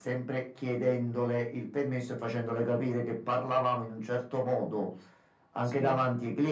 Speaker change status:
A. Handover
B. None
B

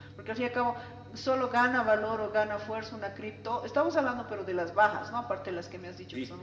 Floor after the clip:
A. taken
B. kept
B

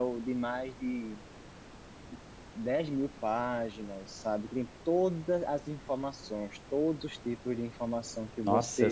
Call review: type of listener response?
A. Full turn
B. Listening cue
A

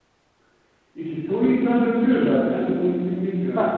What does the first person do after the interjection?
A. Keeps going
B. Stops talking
A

